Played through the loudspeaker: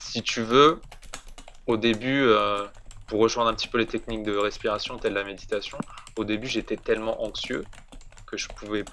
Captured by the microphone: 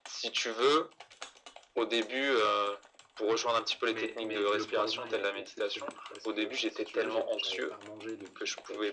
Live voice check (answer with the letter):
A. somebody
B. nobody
A